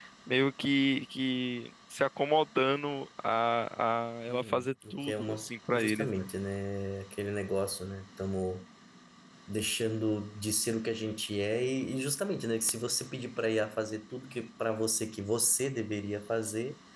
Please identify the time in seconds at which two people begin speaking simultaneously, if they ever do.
4.3 s

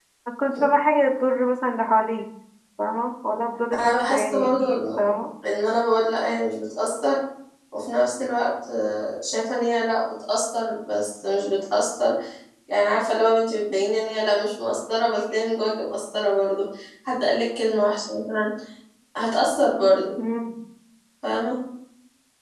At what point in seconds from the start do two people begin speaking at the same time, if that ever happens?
3.7 s

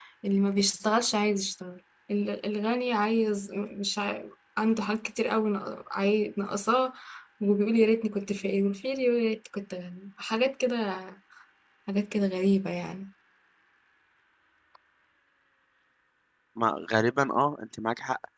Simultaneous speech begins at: none

